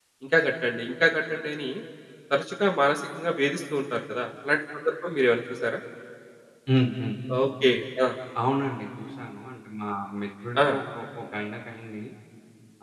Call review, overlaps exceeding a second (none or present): none